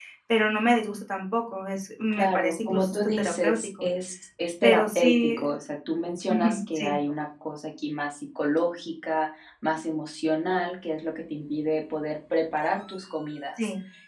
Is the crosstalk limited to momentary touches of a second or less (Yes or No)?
No